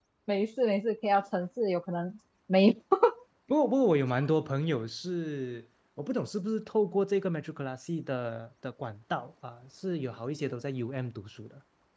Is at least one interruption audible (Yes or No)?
No